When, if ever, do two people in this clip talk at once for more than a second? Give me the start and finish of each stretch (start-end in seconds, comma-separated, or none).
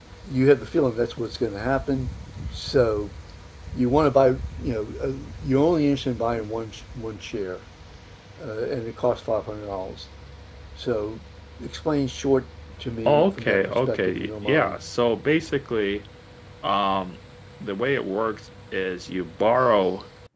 13.1-14.8